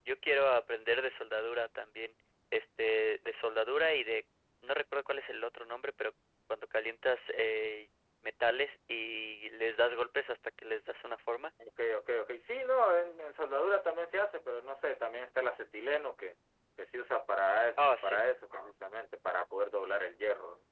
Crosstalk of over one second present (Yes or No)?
No